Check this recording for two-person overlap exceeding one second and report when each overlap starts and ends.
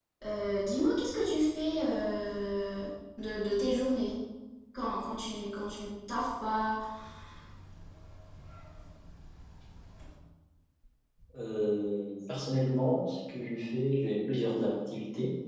none

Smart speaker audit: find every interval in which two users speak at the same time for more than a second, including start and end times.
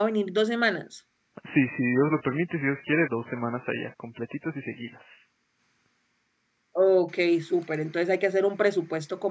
none

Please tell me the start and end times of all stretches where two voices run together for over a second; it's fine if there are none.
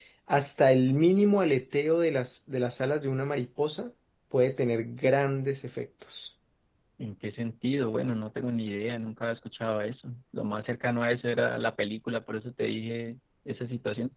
none

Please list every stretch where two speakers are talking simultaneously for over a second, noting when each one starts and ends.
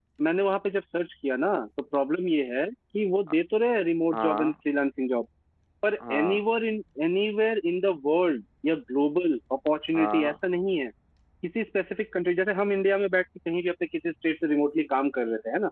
none

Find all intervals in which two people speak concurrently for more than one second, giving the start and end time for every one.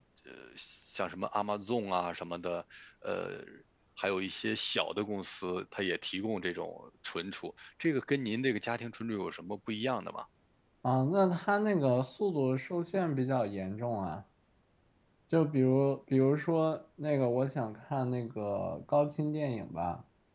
none

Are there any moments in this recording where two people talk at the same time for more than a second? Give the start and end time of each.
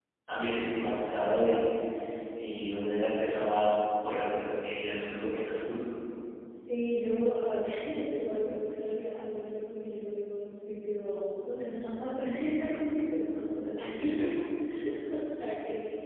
none

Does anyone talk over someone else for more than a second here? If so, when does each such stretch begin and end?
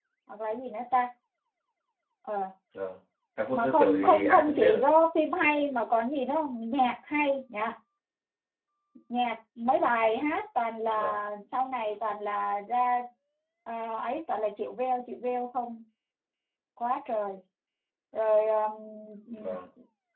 3.5-4.8

